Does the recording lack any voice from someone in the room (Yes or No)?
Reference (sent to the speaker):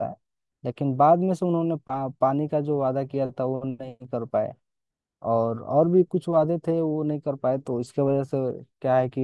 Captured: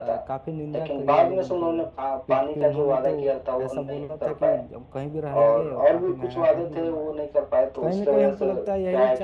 No